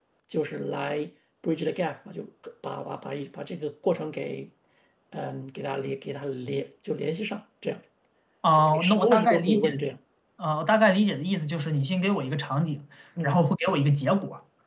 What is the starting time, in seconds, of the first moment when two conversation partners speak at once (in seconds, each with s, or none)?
8.6 s